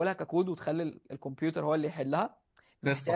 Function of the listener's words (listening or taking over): listening